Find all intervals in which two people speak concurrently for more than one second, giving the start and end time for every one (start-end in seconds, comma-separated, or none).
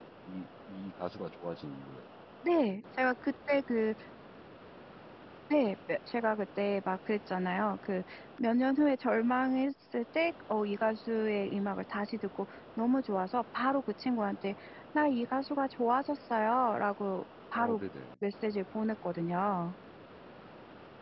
none